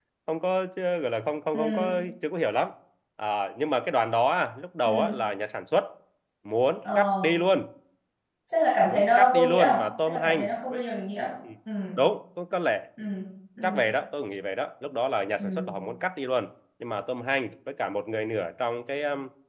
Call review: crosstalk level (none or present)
present